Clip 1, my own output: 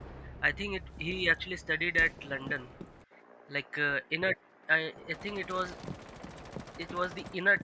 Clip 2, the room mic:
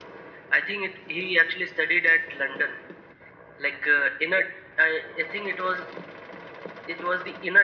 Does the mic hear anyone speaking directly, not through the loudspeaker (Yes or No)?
No